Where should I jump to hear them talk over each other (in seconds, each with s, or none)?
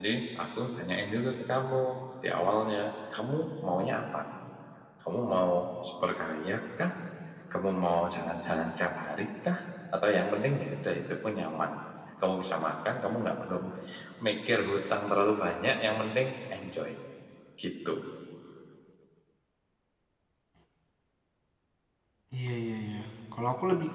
none